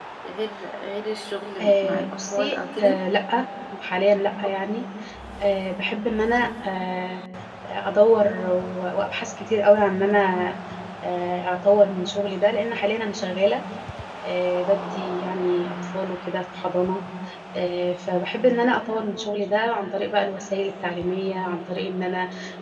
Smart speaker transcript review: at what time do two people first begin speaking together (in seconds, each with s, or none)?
1.6 s